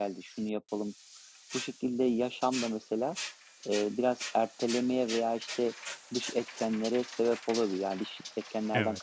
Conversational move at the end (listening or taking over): listening